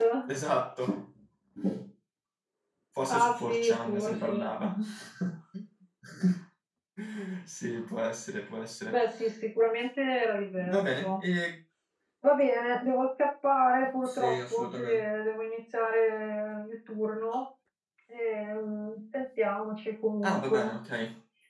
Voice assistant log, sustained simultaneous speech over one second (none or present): present